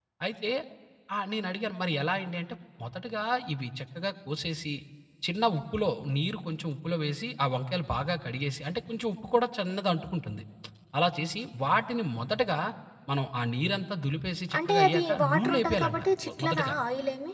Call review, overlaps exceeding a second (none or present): present